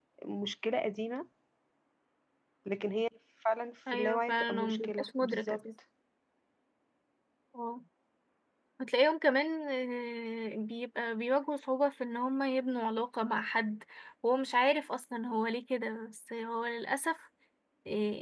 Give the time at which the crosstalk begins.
4 s

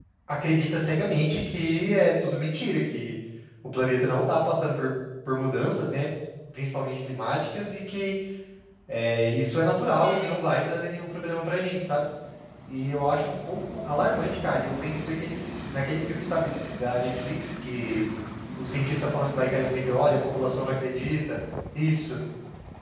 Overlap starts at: none

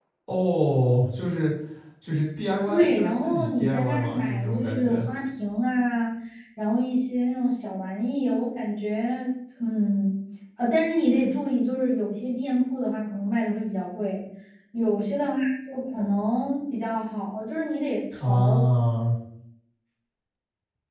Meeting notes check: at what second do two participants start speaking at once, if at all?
3 s

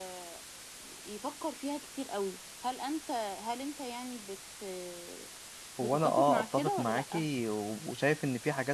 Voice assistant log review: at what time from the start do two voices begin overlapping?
6 s

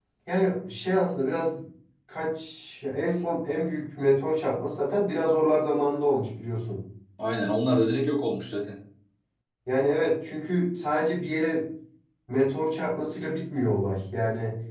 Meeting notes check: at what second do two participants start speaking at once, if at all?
none

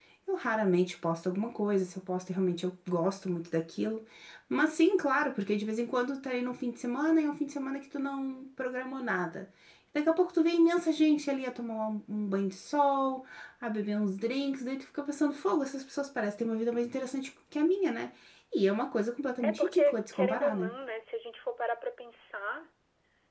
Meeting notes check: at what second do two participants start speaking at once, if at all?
19 s

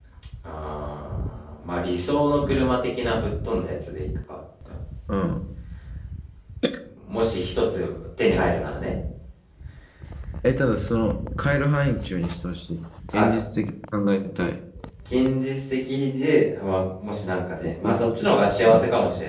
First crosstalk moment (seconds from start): 18 s

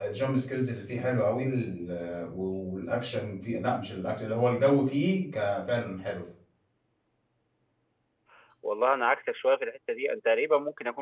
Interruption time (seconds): none

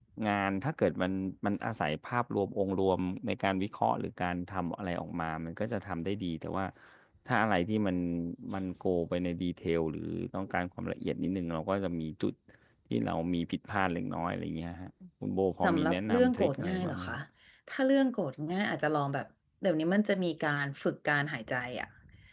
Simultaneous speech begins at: 16 s

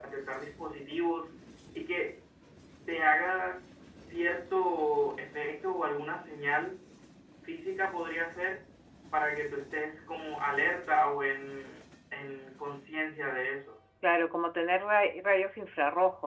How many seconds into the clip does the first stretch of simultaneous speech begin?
none

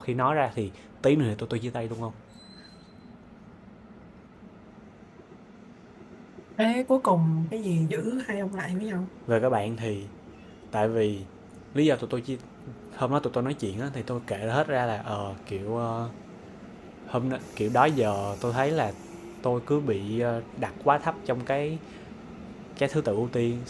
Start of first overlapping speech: none

